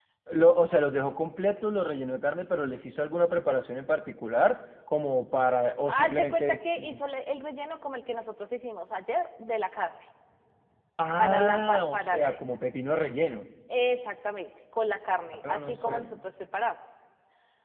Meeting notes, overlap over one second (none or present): present